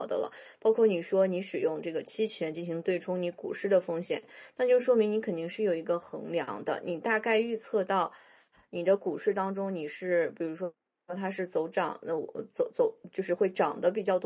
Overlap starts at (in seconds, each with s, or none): none